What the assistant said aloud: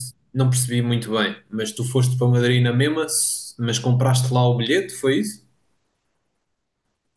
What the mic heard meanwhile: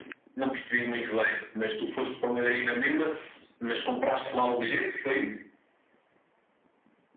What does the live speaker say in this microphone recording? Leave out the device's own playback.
none

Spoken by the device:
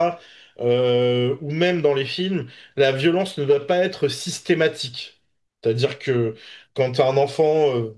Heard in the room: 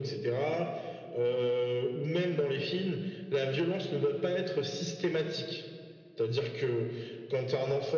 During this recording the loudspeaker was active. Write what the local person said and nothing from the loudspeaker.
none

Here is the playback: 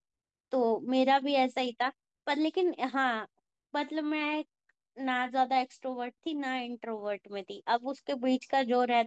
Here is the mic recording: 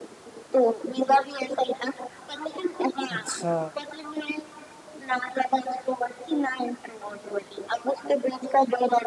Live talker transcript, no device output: अच्छा

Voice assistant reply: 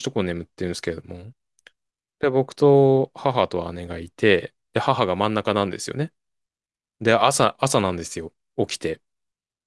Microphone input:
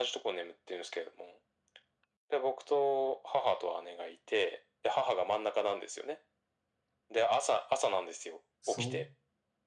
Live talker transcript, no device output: そう。

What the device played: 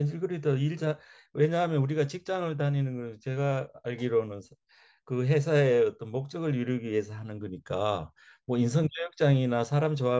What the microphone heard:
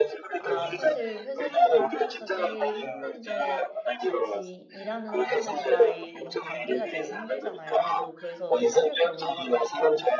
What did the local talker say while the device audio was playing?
아, 사실 회사 생활을 하면서 제일 힘든 게 같이 일하는 사람들과의 이런 관계가 제일 힘들잖아요. 저 그래서 사실 그런 거 가지고 좀

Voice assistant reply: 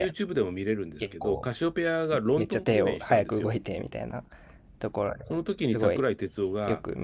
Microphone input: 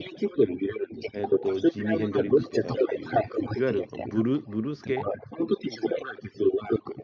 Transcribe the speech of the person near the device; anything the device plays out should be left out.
えっと、ジミー・ヘンドリックスとかっていう、いわゆるブル、ブルース系、

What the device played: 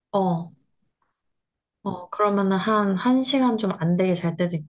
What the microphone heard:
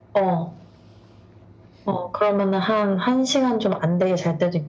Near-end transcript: none

